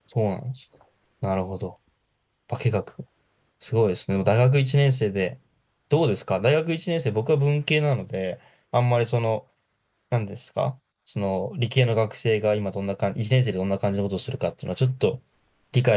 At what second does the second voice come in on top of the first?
none

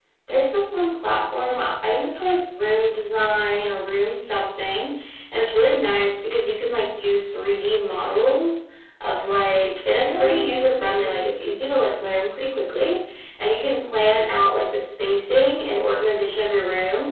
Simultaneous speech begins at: 10.0 s

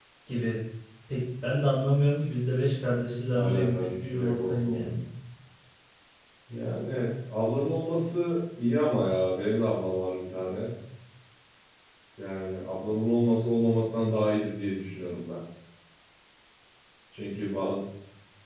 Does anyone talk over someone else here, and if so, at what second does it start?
3.3 s

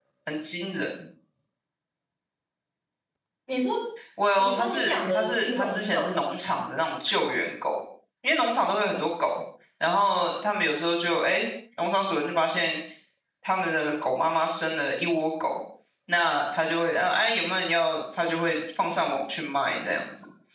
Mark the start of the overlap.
4.4 s

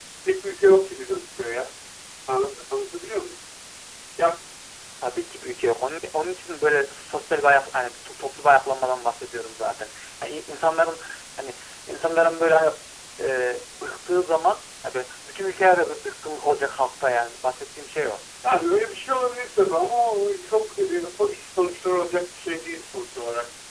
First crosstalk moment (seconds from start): none

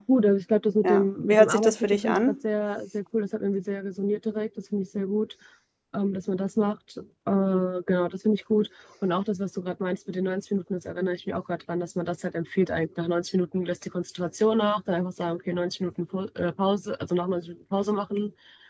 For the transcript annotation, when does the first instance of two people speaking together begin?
0.8 s

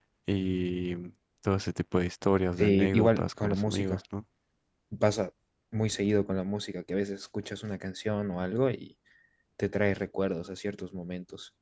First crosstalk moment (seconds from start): 2.6 s

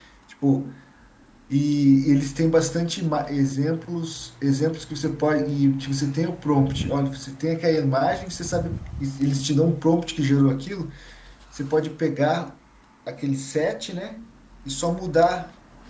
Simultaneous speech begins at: none

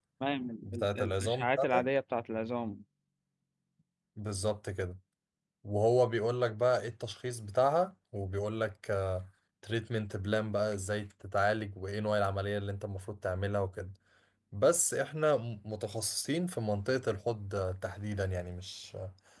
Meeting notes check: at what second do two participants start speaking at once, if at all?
0.6 s

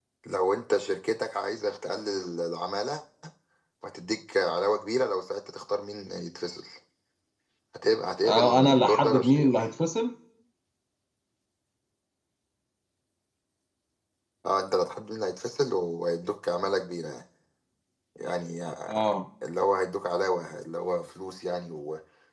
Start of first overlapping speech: 8.2 s

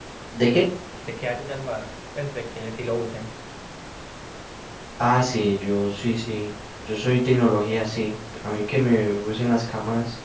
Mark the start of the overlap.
none

